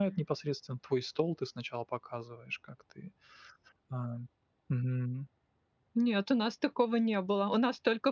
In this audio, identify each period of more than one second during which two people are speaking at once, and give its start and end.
none

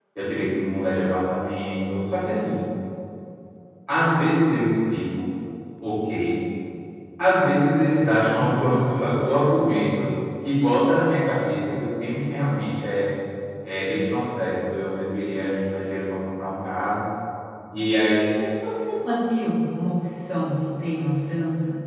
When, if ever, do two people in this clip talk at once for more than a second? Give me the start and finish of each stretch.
none

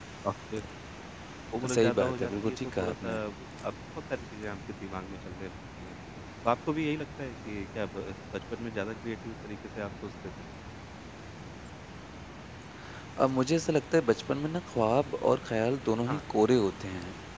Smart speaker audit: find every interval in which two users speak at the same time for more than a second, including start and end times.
1.7-3.1

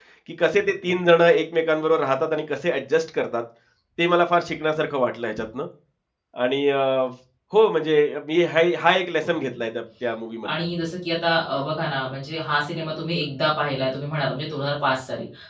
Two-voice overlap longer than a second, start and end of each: none

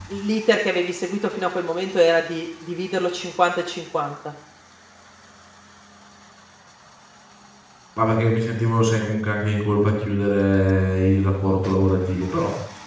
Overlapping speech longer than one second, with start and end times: none

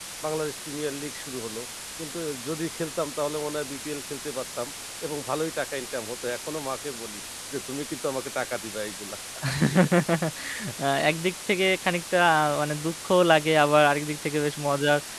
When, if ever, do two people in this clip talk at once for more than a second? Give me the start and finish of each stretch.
none

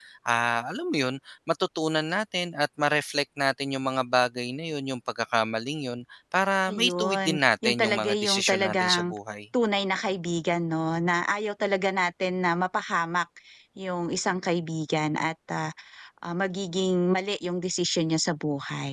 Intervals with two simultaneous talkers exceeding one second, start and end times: 6.7-9.0

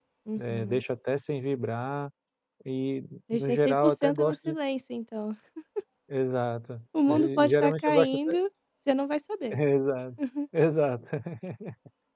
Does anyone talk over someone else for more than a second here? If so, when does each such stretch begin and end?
3.3-4.6, 7.1-8.3

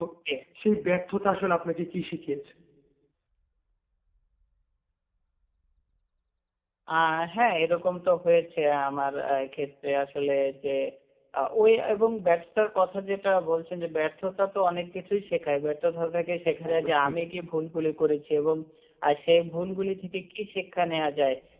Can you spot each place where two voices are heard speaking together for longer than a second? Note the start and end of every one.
none

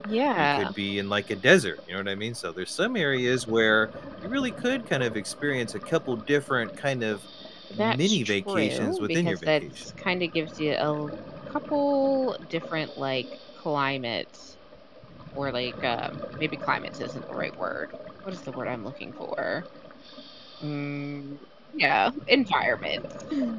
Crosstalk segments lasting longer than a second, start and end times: 7.8-9.9

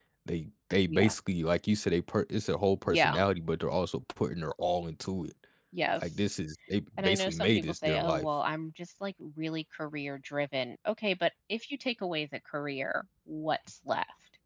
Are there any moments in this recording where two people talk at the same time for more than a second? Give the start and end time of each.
7.0-8.3

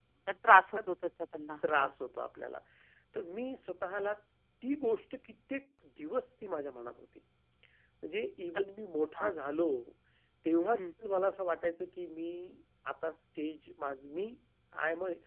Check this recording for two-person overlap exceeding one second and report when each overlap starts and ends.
none

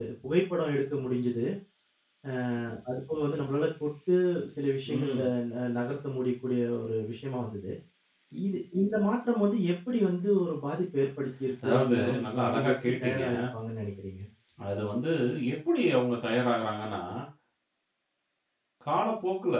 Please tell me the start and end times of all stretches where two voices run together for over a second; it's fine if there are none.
11.6-13.2

